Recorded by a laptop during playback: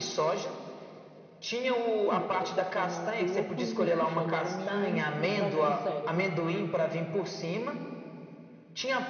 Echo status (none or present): present